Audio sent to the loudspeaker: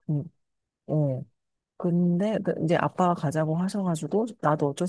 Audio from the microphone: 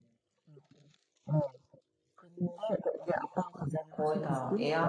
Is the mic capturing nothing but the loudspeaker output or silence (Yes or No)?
No